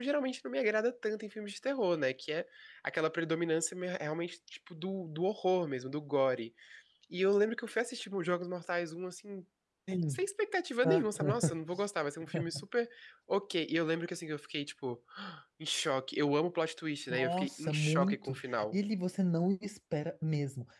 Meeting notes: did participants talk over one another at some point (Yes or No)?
Yes